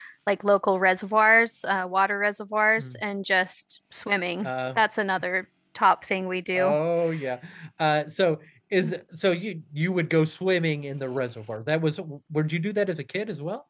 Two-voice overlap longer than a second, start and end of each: none

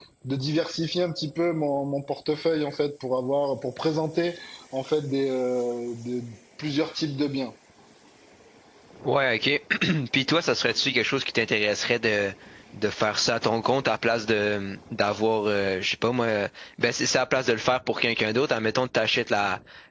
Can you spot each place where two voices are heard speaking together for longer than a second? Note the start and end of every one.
none

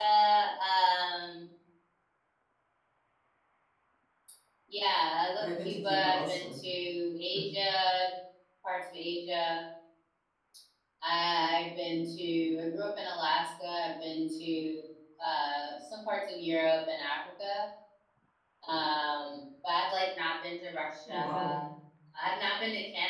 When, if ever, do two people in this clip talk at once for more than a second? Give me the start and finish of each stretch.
5.4-6.6

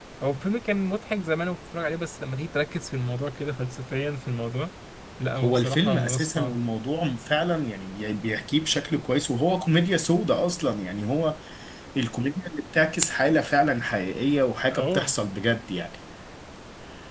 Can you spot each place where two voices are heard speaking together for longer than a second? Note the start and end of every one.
5.4-6.6

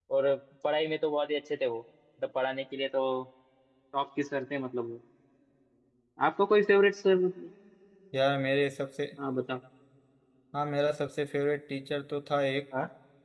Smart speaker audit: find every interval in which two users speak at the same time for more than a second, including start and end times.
none

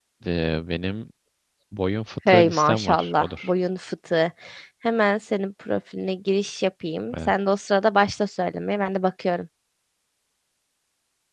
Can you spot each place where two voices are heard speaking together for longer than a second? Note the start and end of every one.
2.3-3.5

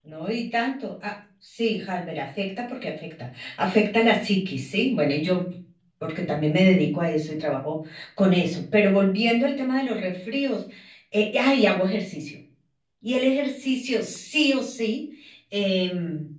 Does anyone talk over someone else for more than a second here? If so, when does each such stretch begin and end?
none

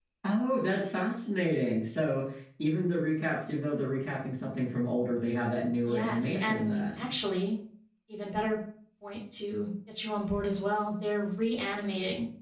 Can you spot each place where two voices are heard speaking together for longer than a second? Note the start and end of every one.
5.8-7.1

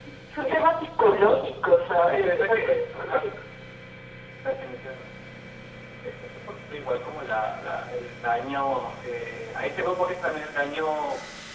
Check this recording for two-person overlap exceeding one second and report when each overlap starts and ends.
2.0-3.2

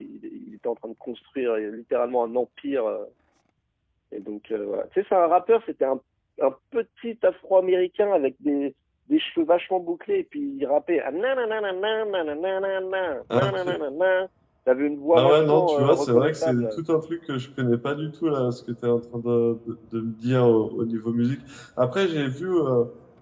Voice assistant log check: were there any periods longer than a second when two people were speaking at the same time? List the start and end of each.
15.2-16.8

